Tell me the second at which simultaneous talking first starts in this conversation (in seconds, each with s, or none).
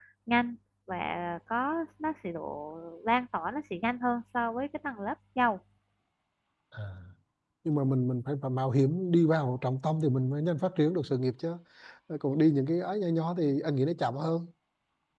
none